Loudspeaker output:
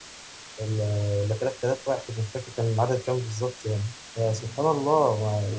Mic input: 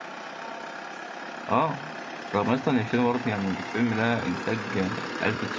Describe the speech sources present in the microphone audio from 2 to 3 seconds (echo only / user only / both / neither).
user only